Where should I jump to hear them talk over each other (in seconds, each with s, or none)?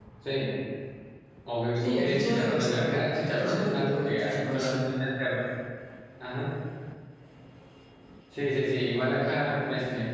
1.8 s